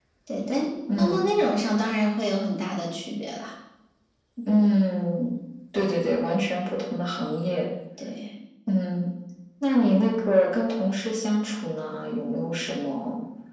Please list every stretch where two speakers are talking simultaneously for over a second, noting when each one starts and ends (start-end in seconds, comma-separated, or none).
none